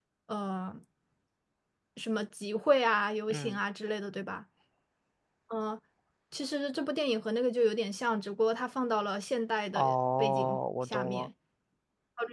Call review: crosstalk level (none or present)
present